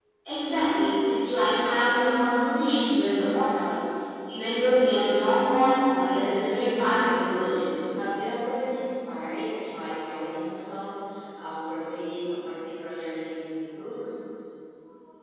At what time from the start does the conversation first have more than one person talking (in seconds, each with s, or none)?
6.1 s